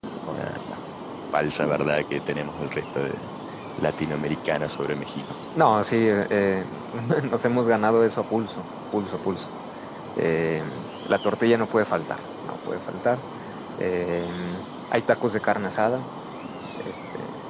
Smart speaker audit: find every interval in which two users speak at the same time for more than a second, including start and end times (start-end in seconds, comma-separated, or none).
none